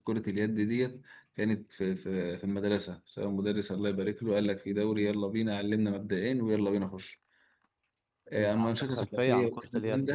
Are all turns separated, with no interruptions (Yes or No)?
No